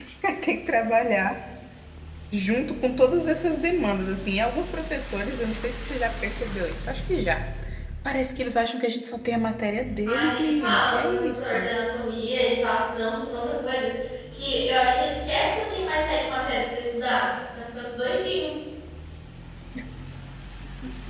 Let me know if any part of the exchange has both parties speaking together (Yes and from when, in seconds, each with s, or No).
Yes, from 10.1 s